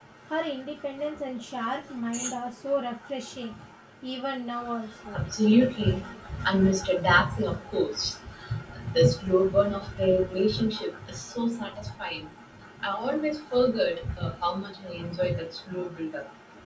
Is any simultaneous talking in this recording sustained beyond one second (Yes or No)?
No